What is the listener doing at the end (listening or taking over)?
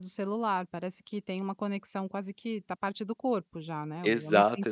taking over